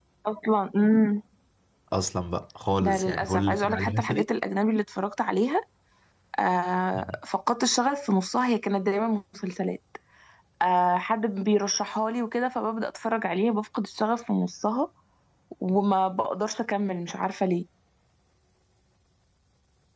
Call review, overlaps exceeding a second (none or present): present